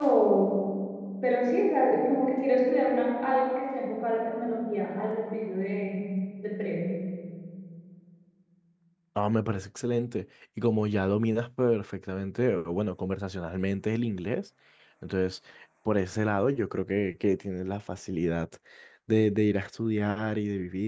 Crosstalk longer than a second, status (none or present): none